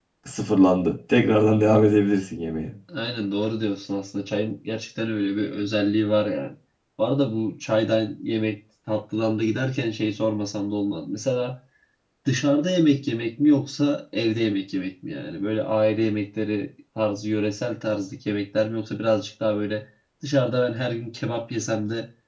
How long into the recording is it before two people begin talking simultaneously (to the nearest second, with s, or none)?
none